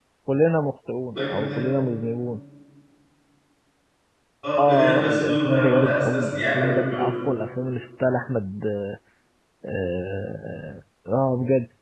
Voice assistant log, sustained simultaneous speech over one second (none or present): present